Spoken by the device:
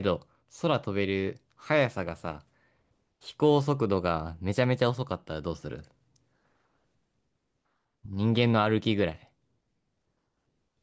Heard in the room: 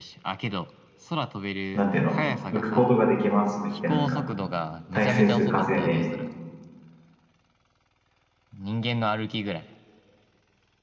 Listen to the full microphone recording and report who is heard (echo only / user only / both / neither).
both